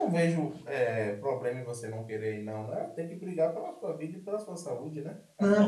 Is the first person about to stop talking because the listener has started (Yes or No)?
Yes